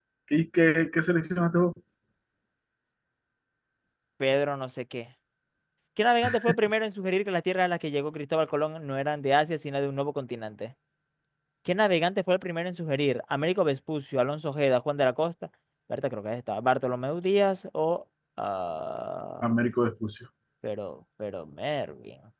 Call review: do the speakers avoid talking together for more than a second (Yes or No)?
Yes